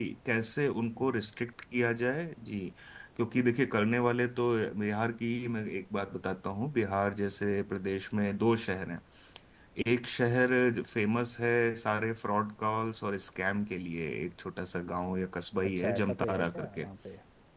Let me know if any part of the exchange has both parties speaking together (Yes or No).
Yes